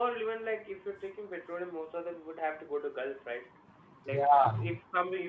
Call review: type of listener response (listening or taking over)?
listening